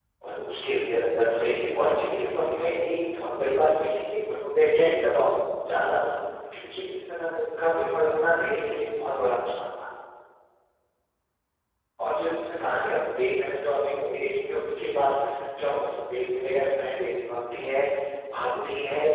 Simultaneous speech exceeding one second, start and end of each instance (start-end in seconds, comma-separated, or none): 1.3-2.6